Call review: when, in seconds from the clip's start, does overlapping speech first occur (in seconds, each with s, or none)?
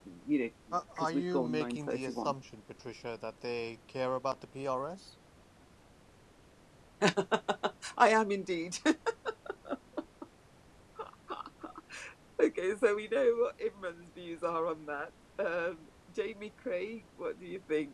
1.0 s